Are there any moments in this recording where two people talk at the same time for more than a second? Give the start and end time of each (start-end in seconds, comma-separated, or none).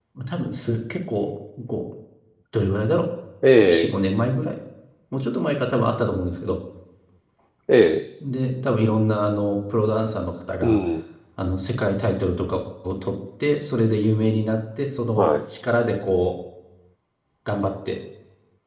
none